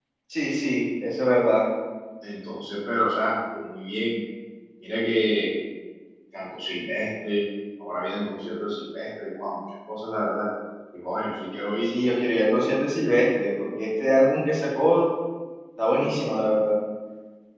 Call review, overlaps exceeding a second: none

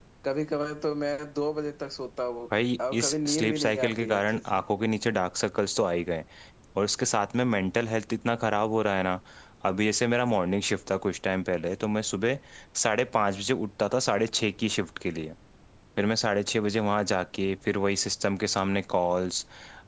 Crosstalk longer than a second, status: present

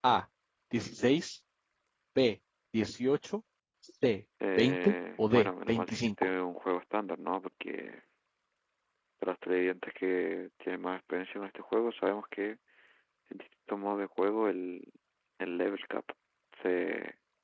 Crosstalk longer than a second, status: present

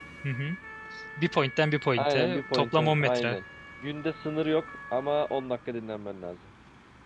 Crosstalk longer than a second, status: present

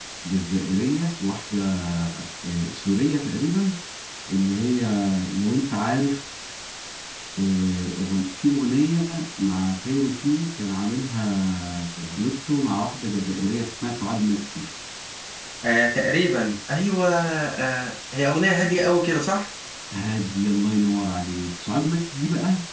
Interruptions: none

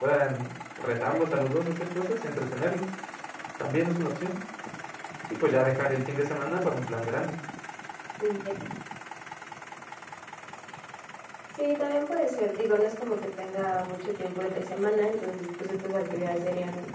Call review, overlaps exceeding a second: none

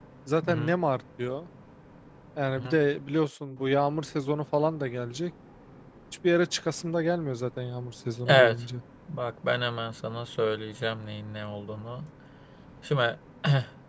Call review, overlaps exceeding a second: none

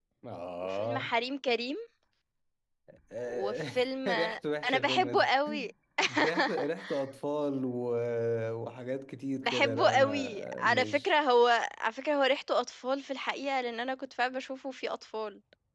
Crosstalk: present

